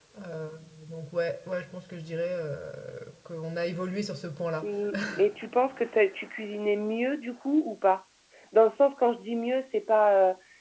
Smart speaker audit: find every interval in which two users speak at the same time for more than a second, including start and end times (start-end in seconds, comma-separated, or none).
none